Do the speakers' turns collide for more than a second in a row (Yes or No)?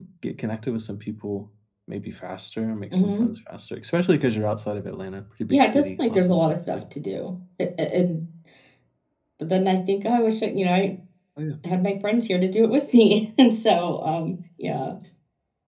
Yes